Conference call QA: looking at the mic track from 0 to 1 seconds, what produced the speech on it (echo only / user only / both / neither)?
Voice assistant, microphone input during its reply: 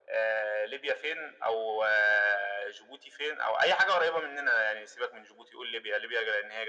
echo only